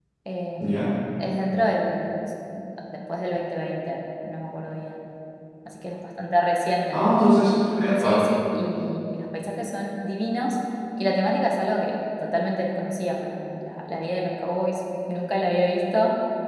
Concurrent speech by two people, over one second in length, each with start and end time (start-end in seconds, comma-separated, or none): none